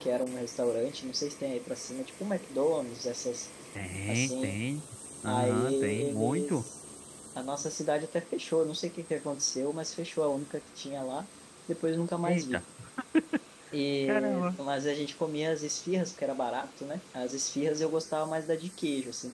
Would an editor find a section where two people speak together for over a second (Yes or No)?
Yes